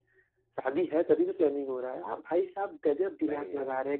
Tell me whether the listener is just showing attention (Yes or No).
Yes